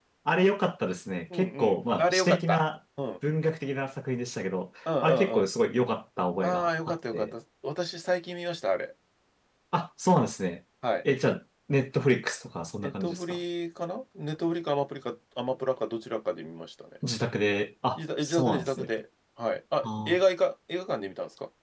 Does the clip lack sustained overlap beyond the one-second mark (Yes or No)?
No